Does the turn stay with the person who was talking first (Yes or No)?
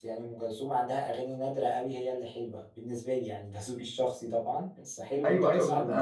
No